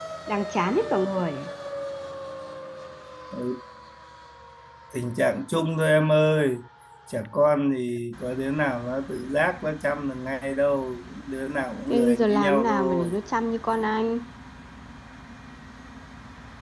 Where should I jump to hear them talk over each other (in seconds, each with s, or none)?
11.9 s